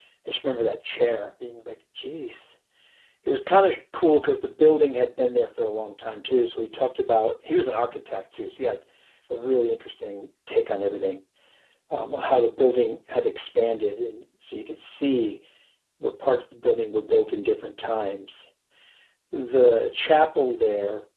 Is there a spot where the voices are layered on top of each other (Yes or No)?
No